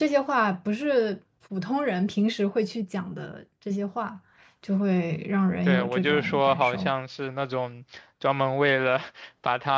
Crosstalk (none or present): present